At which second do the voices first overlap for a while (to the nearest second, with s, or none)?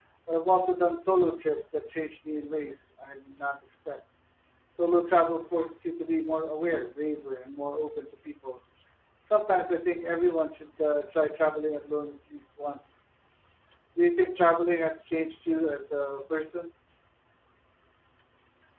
none